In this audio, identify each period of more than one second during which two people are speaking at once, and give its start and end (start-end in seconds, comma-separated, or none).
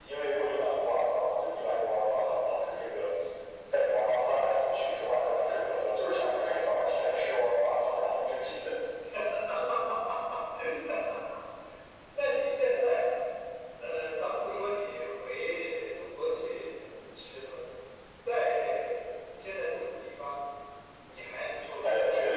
none